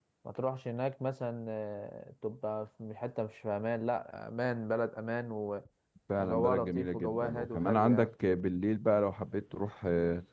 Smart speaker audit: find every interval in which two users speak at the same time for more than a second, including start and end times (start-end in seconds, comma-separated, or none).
6.2-8.1